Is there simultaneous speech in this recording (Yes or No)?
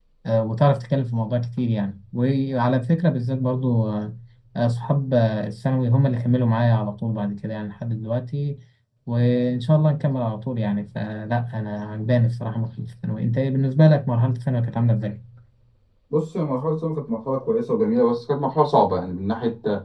No